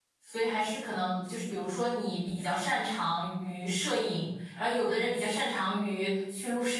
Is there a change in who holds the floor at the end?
No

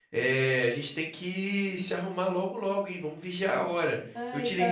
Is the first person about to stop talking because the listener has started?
No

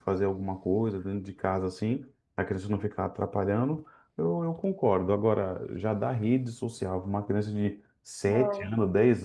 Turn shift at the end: No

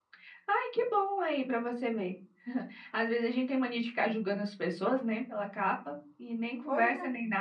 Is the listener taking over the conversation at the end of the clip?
No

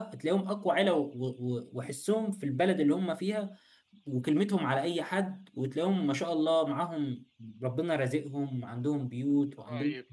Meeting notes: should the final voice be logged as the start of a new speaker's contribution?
Yes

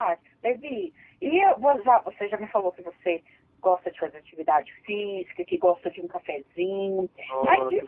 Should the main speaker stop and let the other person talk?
No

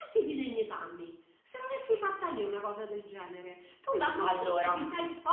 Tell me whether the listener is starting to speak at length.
No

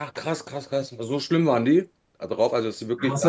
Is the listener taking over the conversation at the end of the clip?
Yes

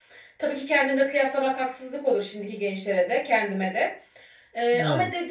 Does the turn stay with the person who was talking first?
Yes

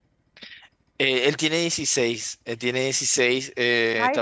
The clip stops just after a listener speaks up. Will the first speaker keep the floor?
Yes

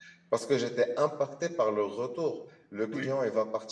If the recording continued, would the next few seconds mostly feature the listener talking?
No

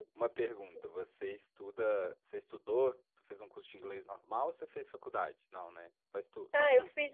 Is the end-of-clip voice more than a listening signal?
Yes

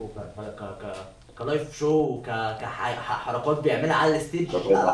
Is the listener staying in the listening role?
No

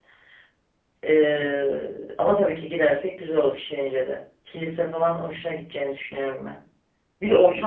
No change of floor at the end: Yes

